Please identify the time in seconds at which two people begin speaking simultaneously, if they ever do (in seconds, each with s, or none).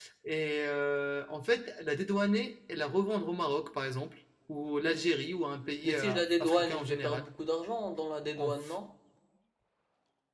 5.8 s